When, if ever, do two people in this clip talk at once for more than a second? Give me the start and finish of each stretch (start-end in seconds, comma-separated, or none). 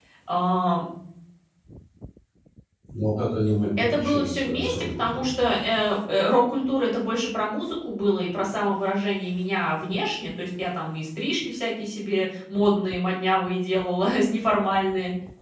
3.8-5.3